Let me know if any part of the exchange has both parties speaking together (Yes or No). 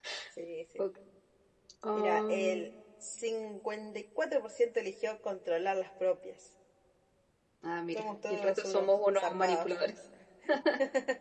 Yes